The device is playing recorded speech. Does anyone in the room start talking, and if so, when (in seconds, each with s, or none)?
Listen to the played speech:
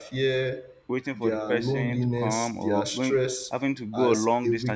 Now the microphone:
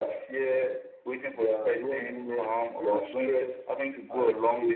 none